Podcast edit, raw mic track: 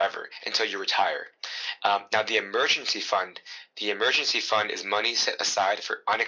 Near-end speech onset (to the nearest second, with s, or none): none